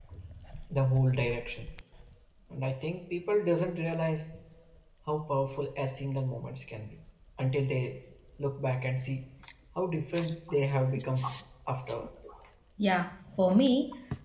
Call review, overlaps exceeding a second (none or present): none